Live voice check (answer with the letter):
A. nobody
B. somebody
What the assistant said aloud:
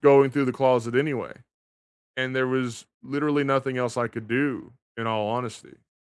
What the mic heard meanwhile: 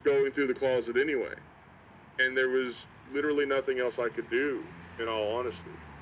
A